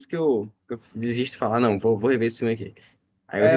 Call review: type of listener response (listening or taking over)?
taking over